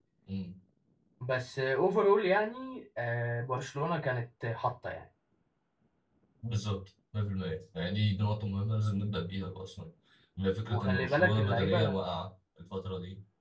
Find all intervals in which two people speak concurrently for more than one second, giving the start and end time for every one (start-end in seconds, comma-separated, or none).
10.7-12.0